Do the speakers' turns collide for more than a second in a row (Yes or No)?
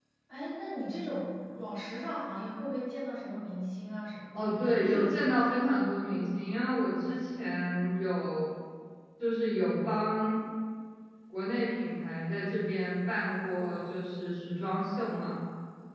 No